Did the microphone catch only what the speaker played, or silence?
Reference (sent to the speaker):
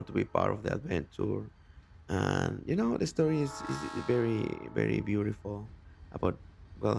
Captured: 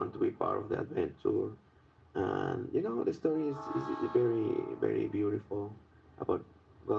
Yes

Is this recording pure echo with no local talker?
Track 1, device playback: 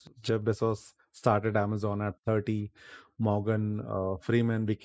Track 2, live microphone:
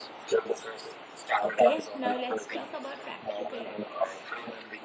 No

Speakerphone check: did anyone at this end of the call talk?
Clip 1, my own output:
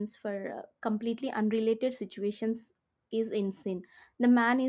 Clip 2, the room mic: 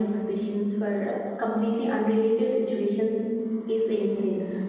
No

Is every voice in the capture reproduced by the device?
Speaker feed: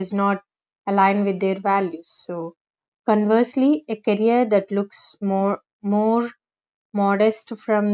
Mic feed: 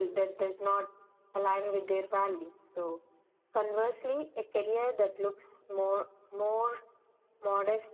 Yes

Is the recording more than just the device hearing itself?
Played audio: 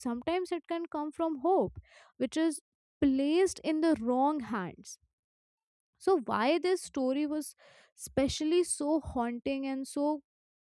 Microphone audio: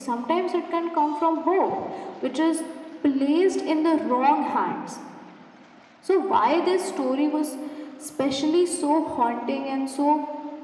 No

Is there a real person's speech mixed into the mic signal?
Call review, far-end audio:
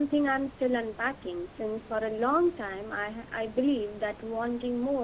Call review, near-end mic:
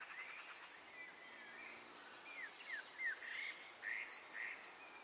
No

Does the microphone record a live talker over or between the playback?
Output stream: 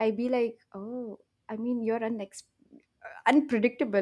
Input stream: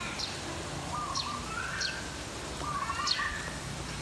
No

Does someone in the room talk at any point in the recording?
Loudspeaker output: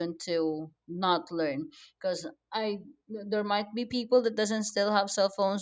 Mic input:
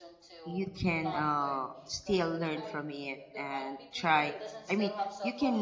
Yes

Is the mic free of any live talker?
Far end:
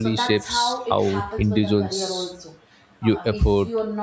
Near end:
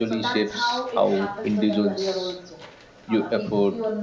Yes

